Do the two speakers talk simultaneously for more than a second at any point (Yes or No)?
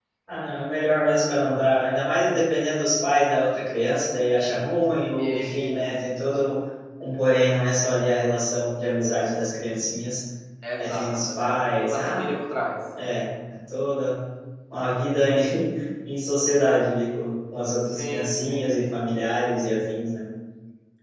Yes